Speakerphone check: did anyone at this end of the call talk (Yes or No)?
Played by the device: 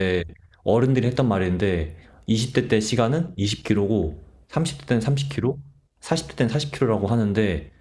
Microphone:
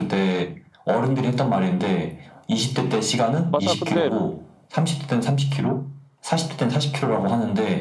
Yes